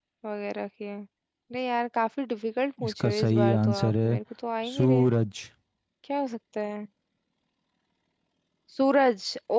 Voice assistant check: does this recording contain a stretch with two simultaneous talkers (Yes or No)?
Yes